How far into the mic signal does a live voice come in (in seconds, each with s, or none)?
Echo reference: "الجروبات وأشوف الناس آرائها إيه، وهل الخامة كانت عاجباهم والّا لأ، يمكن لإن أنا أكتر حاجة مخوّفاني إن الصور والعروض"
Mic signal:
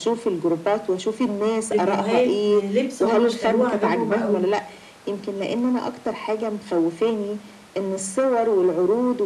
1.7 s